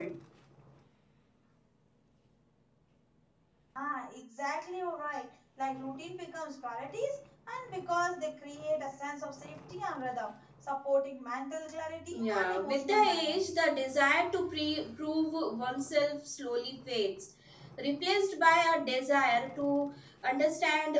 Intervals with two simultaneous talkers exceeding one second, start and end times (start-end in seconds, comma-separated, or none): 12.1-13.4